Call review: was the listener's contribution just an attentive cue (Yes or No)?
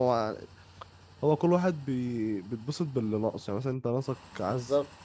Yes